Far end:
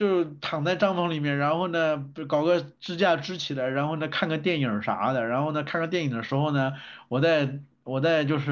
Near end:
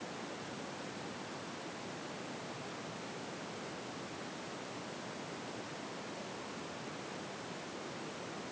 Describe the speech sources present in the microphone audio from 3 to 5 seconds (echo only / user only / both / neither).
neither